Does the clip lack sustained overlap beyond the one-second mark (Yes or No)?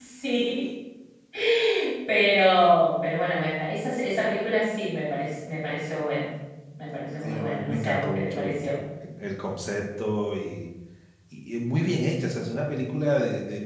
No